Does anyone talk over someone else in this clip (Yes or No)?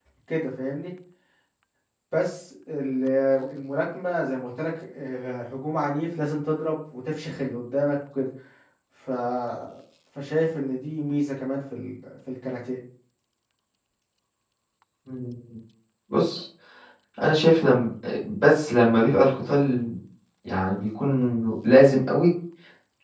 No